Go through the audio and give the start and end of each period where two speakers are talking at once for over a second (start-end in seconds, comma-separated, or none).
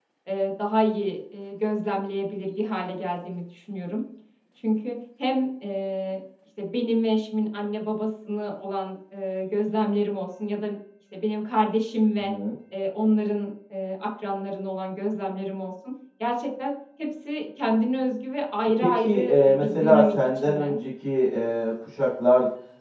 18.8-20.7